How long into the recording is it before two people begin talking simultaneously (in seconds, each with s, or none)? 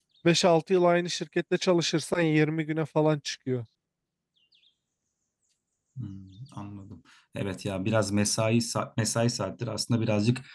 none